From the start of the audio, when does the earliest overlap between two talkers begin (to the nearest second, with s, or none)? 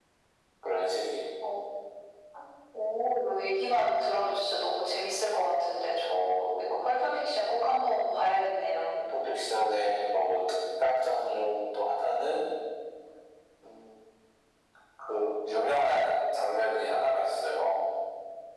none